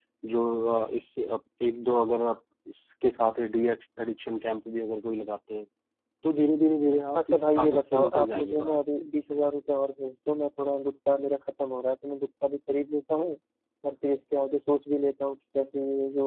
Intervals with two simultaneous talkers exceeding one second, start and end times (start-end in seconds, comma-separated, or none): 7.2-8.8